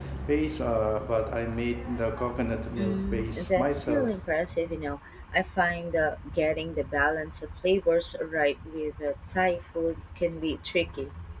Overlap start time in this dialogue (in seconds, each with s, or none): 2.8 s